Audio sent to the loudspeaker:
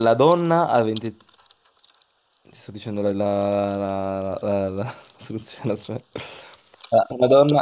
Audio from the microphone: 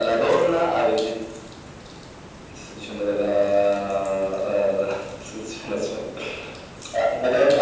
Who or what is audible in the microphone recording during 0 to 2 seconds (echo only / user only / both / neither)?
echo only